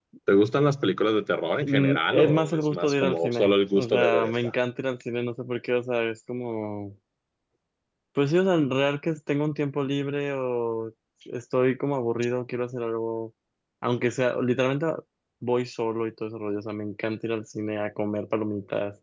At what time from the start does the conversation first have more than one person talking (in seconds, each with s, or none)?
1.6 s